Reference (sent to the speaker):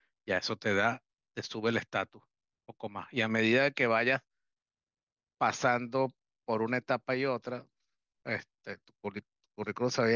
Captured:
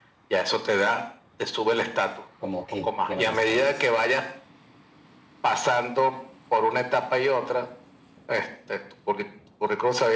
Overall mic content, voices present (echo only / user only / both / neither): both